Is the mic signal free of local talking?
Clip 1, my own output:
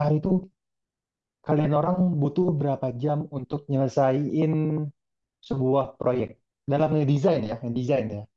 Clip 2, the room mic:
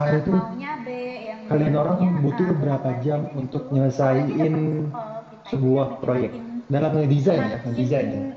No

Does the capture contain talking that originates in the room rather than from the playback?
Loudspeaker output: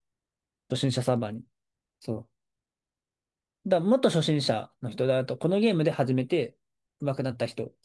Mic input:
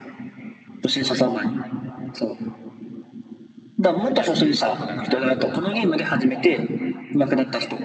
Yes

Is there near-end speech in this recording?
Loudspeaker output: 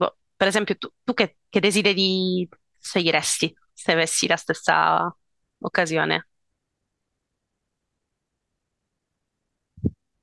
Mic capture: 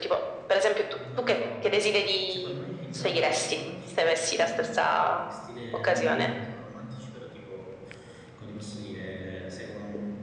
Yes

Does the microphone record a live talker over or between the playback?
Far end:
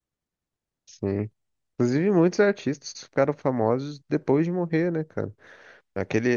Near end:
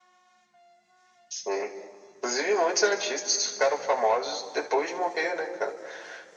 No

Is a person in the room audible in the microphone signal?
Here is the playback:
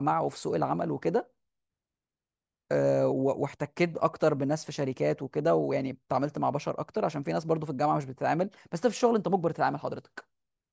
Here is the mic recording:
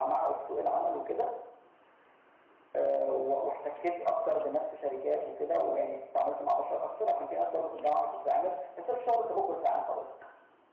No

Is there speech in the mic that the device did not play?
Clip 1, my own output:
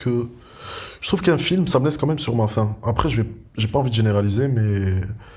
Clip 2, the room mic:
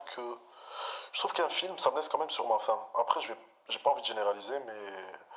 No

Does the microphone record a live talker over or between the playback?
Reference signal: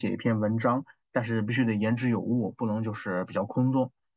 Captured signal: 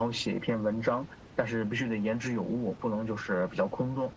No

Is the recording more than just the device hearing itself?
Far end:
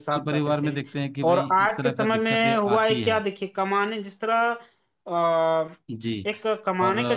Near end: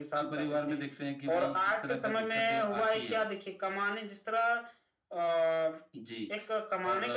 No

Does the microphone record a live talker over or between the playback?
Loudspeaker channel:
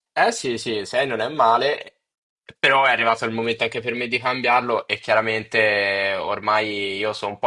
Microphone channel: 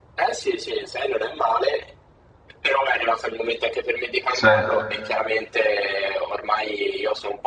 Yes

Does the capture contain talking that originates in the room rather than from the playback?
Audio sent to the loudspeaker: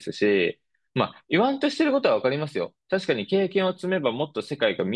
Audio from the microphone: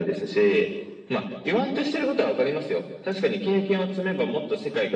No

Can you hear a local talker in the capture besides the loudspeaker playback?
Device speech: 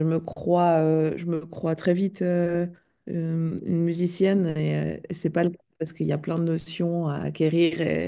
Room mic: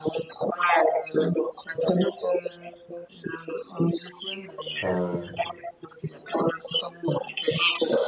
Yes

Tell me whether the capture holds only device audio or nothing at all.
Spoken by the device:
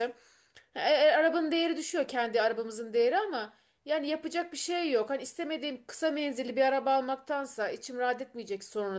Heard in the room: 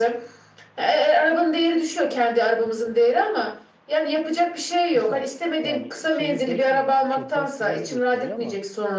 No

